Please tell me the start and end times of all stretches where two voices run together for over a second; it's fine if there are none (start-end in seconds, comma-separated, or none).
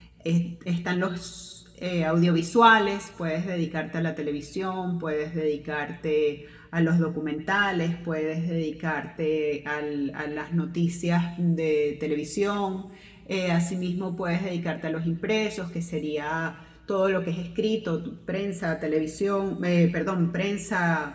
none